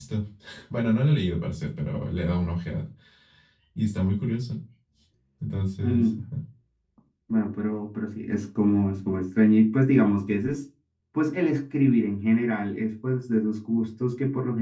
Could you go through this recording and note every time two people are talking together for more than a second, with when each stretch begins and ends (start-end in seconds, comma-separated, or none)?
none